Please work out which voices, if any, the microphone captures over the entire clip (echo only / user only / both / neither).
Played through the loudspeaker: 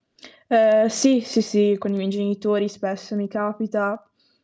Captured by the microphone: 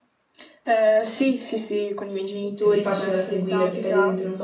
both